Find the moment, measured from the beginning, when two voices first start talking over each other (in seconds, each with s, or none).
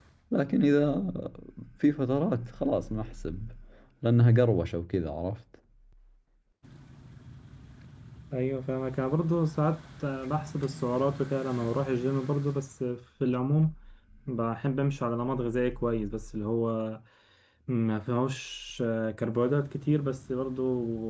none